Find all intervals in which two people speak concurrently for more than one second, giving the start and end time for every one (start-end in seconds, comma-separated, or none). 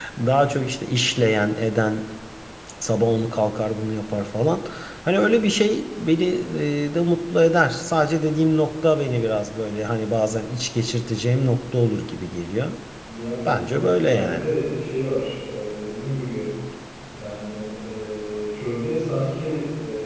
none